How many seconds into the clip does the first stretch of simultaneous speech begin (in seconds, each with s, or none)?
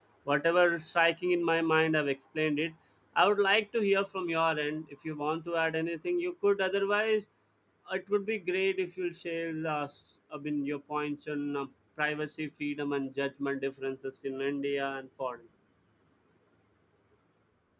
none